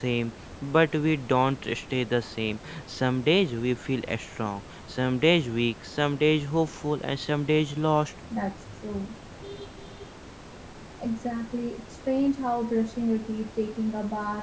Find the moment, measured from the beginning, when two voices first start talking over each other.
none

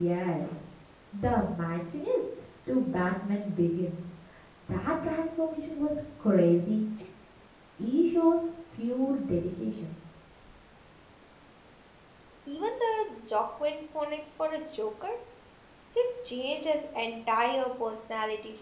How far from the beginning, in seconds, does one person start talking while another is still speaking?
none

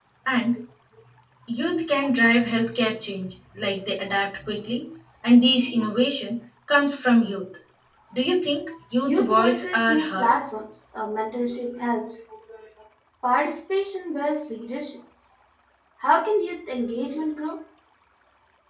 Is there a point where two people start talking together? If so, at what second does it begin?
9.0 s

